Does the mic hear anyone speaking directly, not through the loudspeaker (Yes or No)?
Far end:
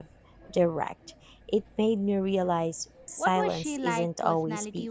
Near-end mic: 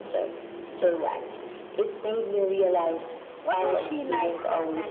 No